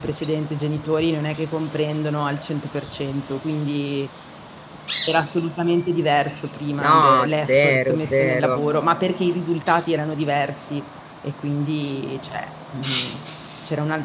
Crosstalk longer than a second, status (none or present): present